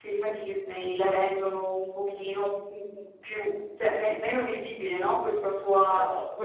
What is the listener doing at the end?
listening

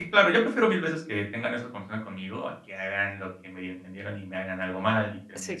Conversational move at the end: taking over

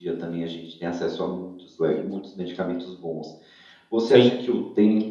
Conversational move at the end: listening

